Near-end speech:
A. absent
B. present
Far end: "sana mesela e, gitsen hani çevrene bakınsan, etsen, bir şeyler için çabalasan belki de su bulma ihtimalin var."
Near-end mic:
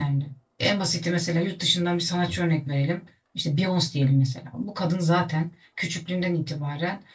B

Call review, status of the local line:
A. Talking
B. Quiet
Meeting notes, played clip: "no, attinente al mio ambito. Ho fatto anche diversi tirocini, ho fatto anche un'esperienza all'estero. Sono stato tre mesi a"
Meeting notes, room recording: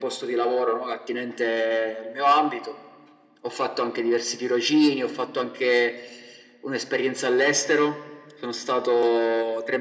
B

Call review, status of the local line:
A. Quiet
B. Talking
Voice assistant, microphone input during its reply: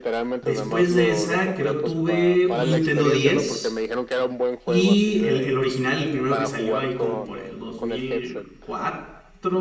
B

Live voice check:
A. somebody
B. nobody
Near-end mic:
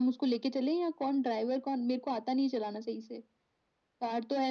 B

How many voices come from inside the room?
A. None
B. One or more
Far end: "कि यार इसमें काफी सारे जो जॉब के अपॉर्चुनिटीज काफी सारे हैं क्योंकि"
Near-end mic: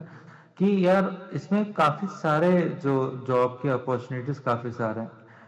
A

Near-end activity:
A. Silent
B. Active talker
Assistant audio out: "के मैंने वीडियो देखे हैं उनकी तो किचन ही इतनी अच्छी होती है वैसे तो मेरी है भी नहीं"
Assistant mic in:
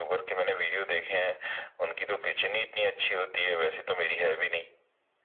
A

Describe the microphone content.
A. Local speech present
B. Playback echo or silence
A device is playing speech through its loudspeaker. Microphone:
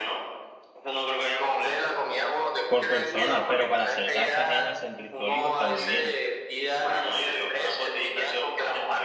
A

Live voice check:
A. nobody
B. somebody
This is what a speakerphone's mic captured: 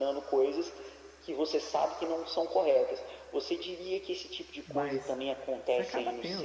B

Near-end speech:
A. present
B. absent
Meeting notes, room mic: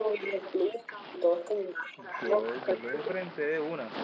A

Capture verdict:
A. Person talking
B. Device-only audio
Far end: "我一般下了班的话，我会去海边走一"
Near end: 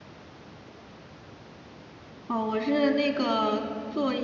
A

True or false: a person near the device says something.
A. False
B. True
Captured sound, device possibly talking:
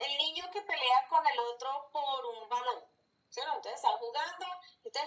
A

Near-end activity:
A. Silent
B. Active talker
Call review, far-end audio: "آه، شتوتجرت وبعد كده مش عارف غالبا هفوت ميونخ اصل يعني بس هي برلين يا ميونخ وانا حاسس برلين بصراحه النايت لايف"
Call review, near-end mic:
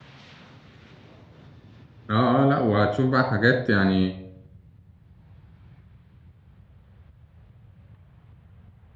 B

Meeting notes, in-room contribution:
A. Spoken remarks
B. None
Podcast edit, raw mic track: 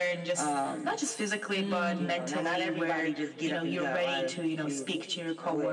A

